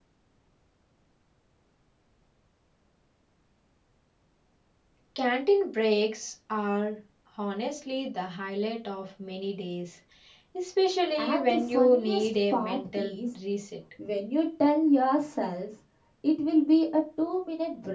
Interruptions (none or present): present